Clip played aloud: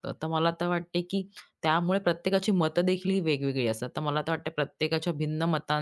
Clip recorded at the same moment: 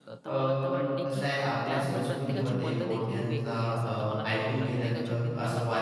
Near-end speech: present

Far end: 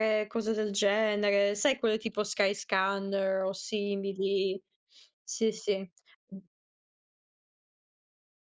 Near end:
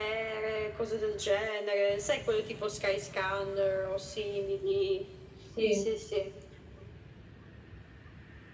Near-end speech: present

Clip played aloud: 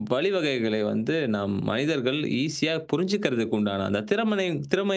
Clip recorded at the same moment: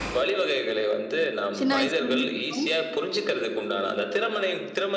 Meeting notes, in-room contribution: present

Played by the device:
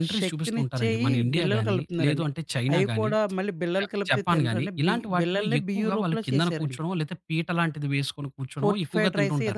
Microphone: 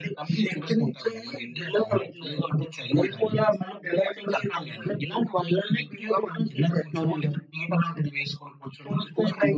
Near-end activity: present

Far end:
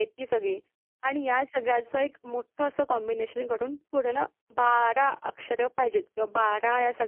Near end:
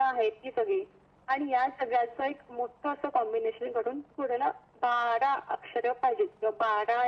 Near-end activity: none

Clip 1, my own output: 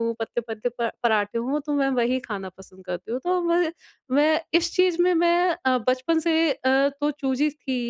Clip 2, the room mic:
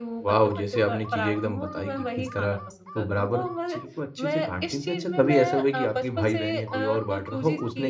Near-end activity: present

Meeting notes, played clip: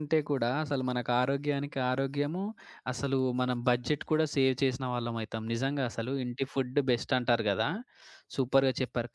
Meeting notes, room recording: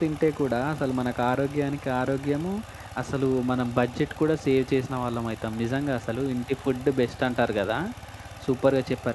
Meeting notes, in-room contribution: none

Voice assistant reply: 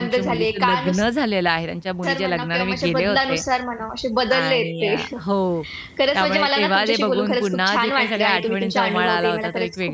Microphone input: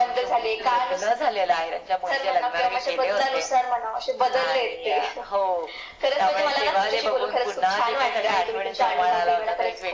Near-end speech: none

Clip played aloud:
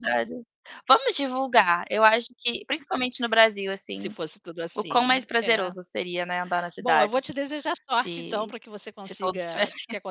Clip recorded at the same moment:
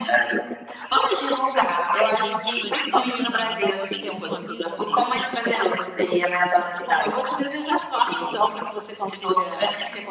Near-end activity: present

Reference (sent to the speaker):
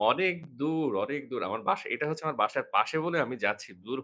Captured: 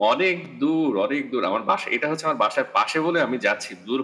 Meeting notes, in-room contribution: none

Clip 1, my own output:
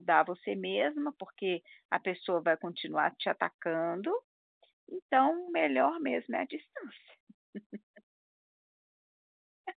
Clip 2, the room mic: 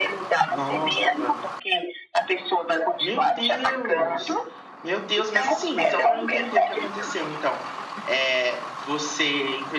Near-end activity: present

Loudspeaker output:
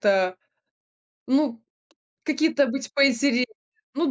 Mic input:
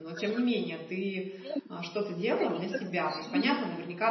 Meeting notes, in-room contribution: present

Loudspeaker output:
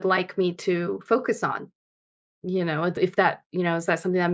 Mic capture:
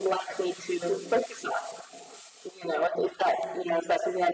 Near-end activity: none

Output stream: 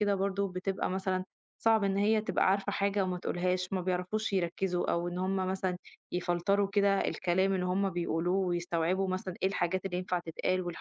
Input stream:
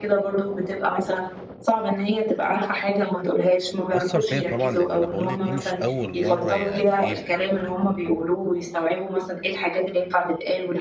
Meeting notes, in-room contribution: present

